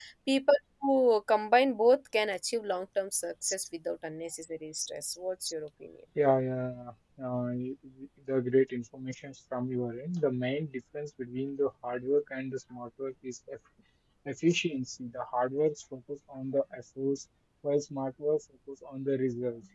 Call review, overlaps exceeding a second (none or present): none